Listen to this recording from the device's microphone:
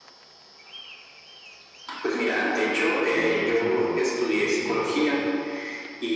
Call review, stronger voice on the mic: echo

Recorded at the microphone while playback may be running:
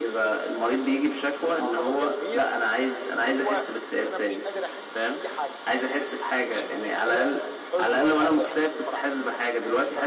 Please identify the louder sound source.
echo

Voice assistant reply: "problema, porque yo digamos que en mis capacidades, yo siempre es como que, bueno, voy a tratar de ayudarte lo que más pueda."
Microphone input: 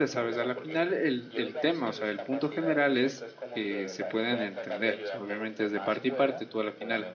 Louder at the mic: user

